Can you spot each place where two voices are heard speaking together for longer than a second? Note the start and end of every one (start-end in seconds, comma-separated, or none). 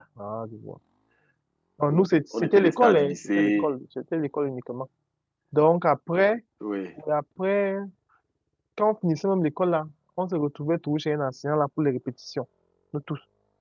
2.4-3.7